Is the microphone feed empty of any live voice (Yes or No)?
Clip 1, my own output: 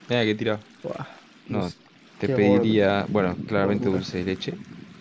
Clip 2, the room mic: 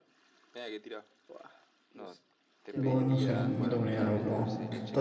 No